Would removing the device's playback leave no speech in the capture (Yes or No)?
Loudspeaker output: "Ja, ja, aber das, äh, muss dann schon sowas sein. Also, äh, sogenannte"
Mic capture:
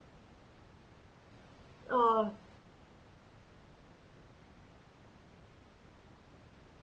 No